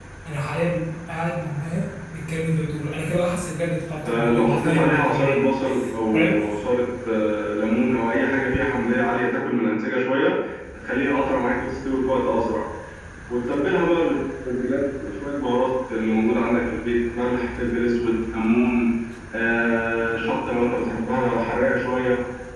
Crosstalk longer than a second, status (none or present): present